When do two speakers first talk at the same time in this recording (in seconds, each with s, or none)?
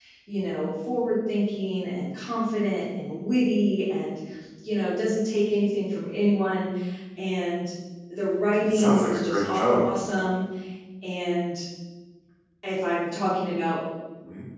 8.6 s